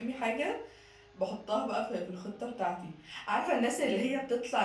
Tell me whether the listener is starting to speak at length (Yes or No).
No